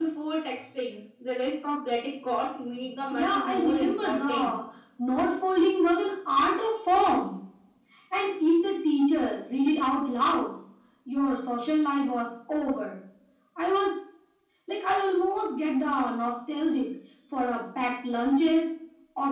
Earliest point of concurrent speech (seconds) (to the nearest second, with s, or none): 3 s